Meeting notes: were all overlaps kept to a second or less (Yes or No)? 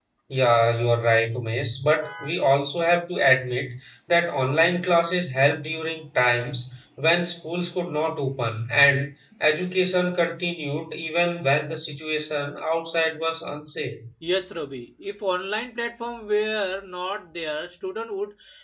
Yes